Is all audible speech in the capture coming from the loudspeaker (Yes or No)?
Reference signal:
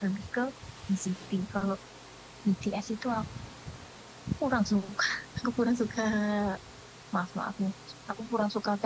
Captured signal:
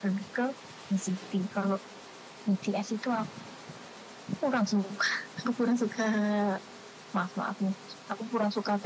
Yes